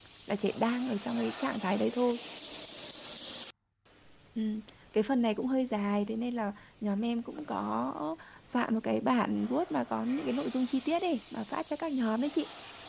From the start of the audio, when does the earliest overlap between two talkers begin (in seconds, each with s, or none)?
none